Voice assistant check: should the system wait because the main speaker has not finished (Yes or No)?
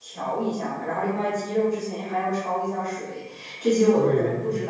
Yes